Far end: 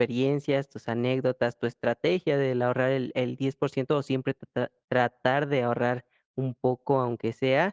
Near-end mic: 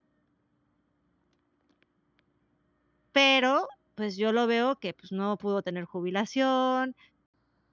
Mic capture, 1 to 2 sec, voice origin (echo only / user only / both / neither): neither